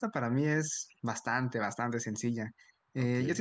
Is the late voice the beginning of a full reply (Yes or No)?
No